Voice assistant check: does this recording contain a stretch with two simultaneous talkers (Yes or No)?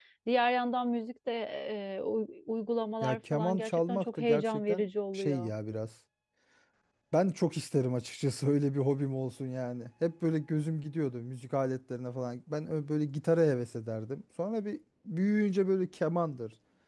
Yes